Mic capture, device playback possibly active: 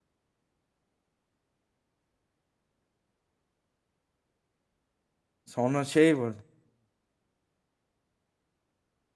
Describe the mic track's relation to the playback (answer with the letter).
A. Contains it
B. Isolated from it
B